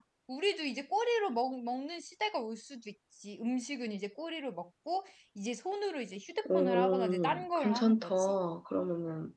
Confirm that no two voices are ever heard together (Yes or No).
No